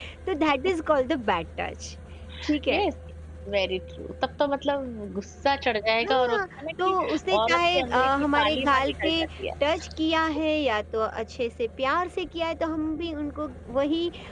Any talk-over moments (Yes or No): Yes